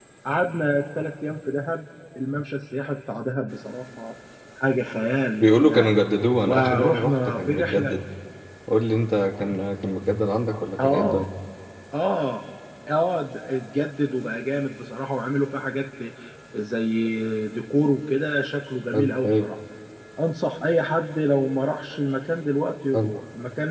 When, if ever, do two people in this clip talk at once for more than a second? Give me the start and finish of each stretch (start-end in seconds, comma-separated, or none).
6.4-8.0